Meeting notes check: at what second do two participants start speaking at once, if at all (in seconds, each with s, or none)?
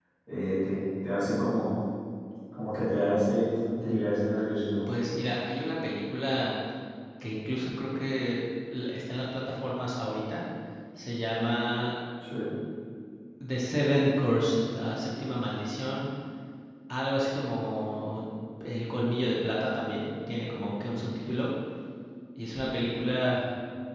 none